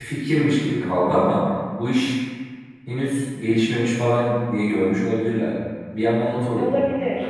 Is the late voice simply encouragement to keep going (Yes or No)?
No